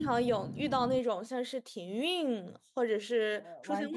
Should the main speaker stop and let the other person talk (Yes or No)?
Yes